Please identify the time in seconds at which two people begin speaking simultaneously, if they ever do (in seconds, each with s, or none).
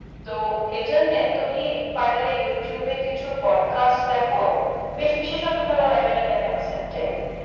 none